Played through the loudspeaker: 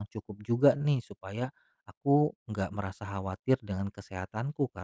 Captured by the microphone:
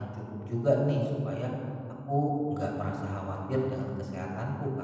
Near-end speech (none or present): none